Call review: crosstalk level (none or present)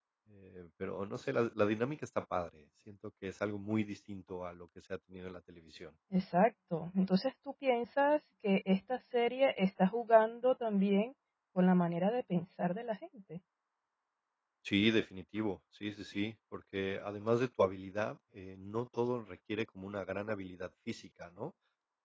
none